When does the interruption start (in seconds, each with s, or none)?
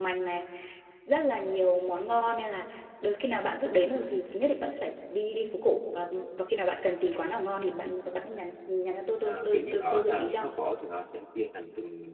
9.1 s